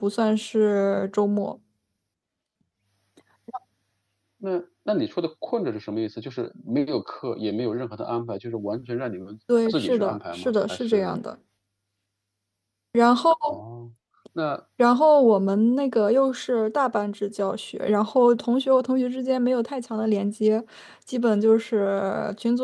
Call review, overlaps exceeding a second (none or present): present